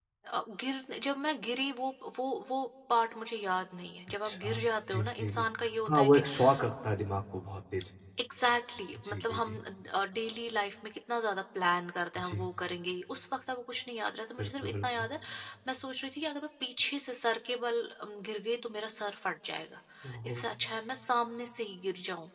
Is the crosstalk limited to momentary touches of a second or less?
No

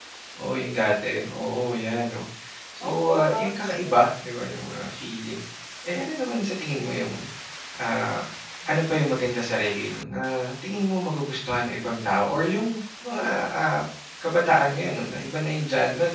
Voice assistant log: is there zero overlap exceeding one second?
No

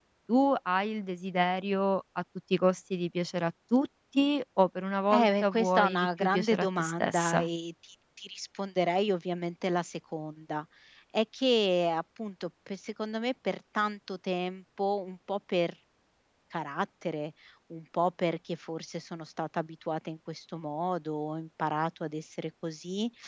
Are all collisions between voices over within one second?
No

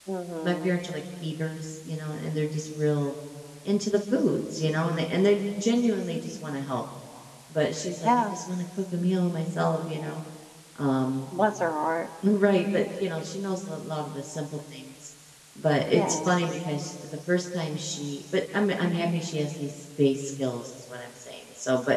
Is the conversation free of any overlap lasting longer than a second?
Yes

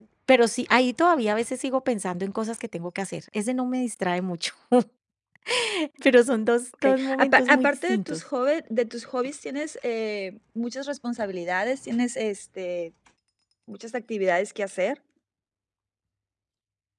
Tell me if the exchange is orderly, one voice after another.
No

